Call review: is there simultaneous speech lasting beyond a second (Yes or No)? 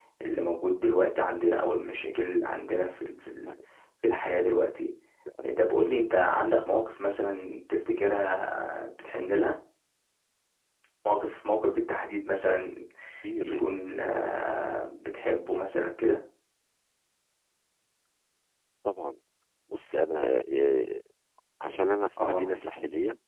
No